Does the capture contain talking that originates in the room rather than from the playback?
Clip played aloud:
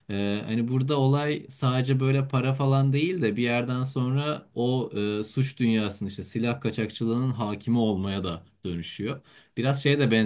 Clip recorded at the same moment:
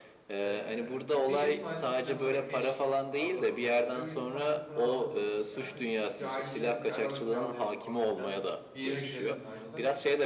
Yes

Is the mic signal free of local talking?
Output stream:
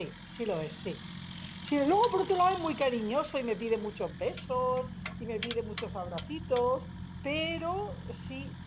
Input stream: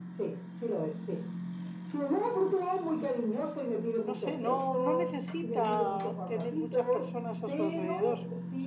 No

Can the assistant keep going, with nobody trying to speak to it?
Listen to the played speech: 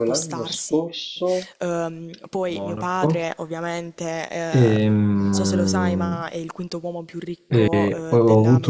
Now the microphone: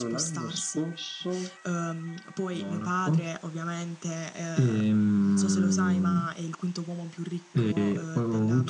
Yes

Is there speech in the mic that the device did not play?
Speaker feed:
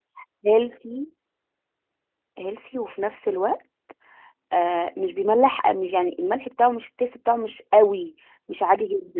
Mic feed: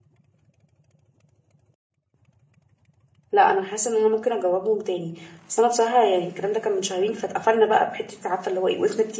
Yes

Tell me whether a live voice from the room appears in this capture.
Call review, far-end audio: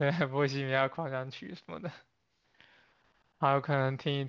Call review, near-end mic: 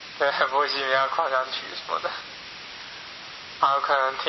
No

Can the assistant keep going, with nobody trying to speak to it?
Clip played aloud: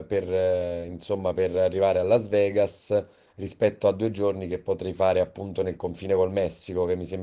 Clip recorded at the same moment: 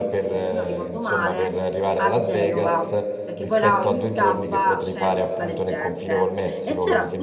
No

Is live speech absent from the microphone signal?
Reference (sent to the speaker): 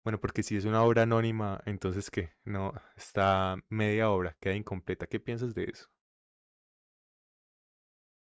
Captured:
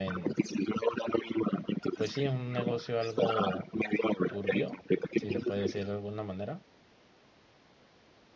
No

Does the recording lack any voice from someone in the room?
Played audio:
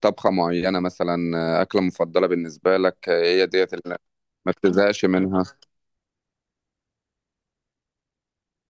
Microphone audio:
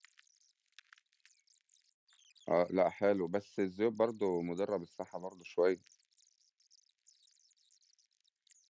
No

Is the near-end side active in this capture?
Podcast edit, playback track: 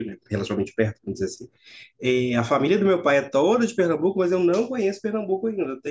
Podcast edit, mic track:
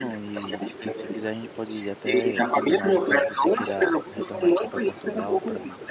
Yes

